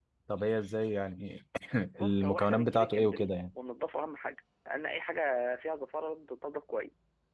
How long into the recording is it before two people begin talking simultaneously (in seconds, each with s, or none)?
2.0 s